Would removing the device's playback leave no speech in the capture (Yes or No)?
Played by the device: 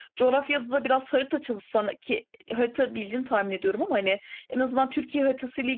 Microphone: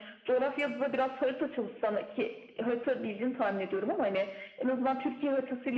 Yes